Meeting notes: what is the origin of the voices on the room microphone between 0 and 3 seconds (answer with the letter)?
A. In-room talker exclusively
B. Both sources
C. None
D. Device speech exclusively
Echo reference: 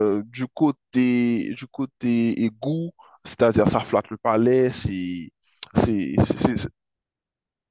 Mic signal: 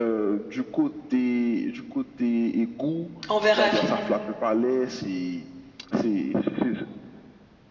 D